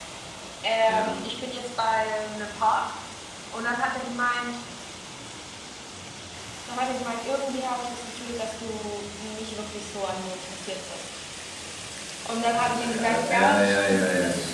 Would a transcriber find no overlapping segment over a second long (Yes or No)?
No